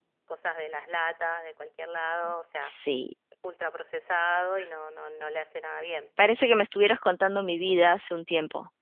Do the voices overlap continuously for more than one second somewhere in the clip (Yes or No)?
No